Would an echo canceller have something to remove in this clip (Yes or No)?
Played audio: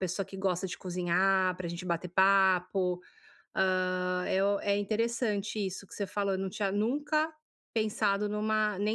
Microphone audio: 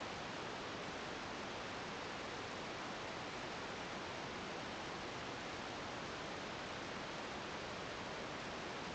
No